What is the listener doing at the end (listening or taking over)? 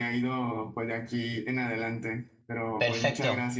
taking over